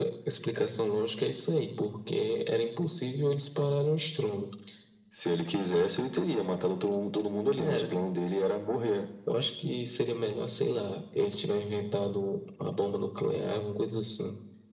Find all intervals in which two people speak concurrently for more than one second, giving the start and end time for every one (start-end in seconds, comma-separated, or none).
none